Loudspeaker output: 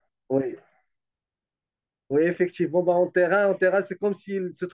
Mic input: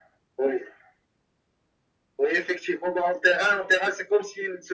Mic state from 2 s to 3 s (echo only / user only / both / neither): echo only